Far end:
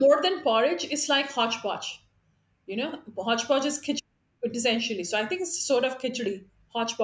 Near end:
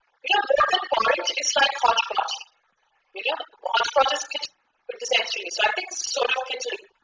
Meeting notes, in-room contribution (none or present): none